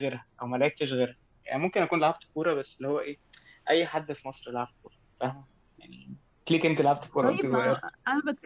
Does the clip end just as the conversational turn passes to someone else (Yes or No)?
Yes